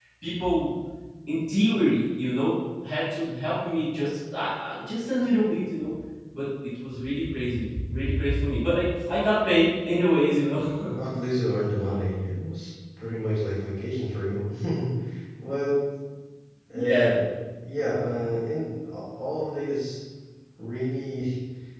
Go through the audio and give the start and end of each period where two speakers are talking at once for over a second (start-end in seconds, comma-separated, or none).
none